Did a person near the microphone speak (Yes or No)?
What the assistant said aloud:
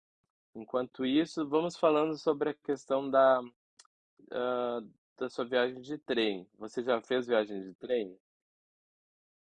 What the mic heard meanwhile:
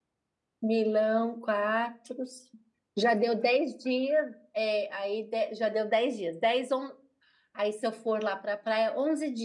Yes